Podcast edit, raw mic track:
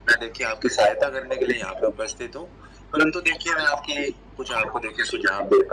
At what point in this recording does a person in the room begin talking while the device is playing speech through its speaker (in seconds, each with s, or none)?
none